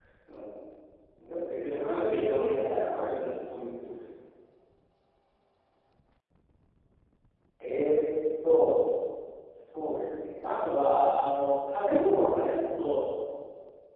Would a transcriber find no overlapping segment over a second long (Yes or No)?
No